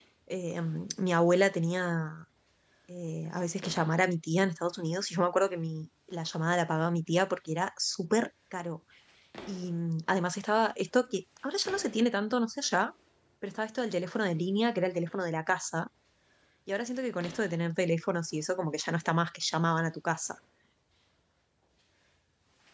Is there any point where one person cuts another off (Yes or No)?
No